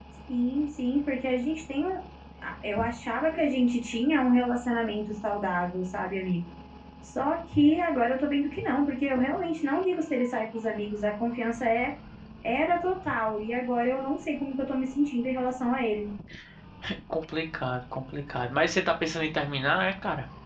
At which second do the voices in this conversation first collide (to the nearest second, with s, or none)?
none